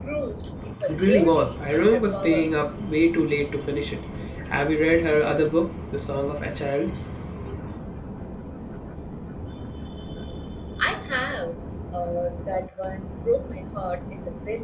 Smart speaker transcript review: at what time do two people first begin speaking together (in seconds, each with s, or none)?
0.9 s